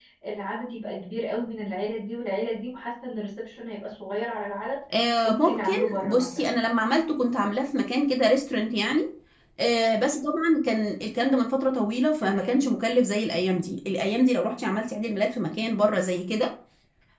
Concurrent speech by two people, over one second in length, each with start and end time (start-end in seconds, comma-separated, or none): 5.2-6.5